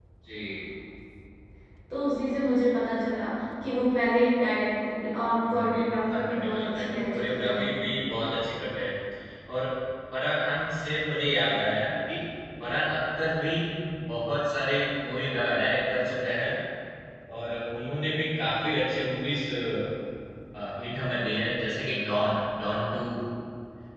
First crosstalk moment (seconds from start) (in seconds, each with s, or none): 5.4 s